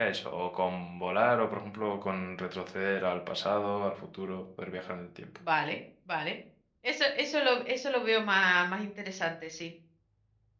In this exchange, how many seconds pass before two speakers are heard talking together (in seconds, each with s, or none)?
none